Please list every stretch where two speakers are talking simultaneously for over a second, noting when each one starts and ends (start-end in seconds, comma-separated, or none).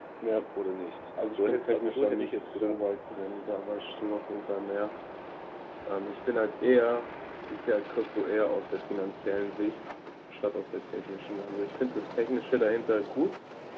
1.3-2.8